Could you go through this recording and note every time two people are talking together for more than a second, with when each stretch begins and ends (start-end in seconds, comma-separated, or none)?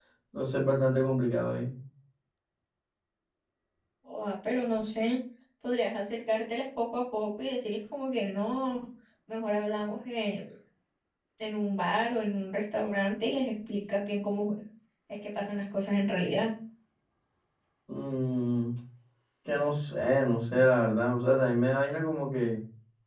none